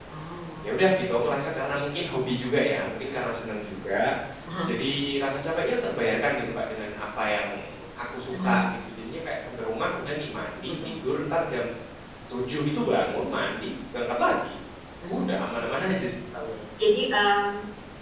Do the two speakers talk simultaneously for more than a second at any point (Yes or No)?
No